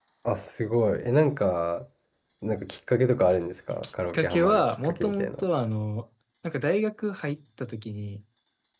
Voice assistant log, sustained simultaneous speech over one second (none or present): present